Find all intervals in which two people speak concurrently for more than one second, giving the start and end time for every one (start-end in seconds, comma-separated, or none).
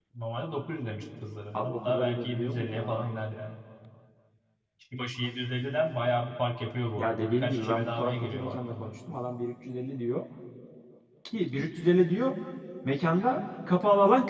1.5-3.0, 7.0-8.9